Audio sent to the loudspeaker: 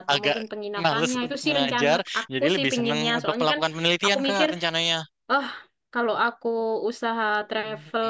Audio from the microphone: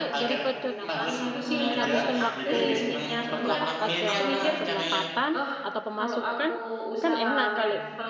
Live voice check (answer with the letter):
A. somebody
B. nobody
A